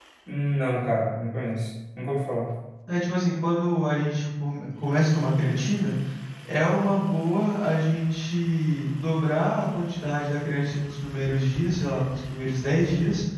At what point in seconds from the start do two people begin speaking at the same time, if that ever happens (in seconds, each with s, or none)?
none